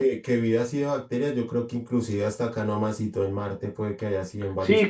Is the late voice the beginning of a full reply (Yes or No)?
Yes